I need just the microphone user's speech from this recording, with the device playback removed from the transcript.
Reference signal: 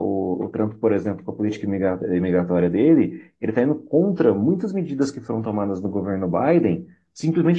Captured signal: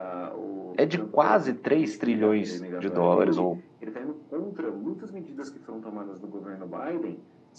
é de quase 3 trilhões de dólares ou

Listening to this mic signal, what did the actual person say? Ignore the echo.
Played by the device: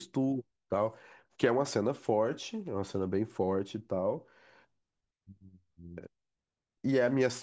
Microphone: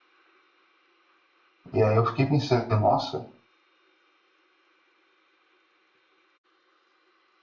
E aí eu fiquei pensando, nossa,

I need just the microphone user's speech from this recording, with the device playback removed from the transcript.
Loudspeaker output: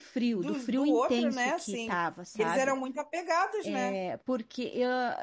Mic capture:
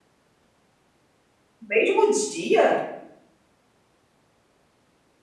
Mesmo dia?

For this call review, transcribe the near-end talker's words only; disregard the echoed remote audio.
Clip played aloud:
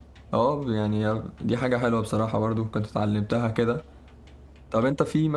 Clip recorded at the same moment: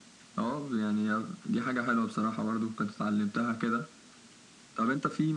none

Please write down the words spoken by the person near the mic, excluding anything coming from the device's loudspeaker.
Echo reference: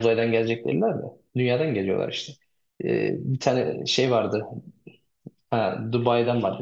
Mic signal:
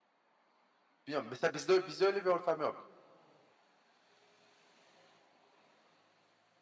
Bilmiyorum. Mesela bizde, bizde öyle bir ortam yok.

